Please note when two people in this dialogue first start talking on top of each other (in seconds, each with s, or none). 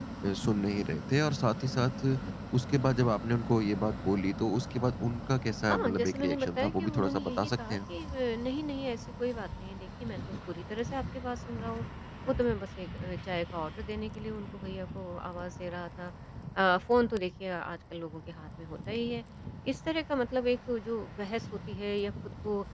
5.7 s